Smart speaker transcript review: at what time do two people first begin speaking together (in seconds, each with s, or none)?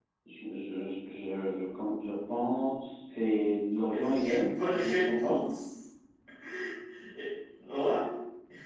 3.9 s